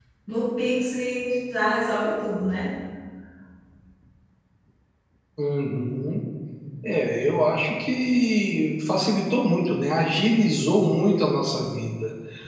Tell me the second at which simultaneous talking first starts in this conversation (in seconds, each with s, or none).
none